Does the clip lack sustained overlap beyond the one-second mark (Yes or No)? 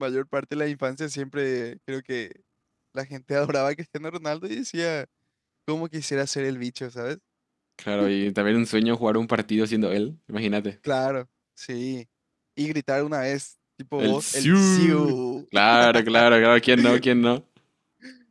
No